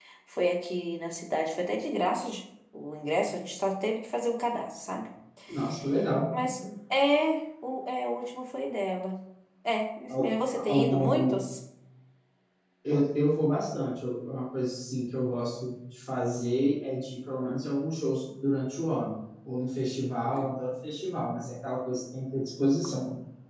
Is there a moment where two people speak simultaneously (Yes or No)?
Yes